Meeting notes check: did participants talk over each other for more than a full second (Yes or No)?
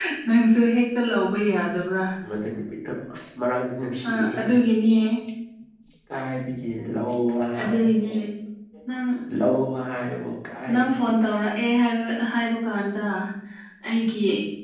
No